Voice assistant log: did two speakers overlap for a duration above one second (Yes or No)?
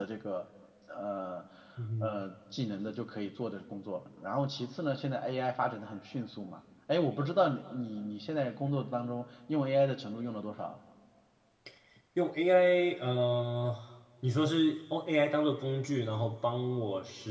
No